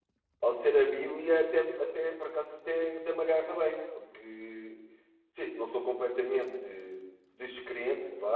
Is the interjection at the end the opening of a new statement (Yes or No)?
Yes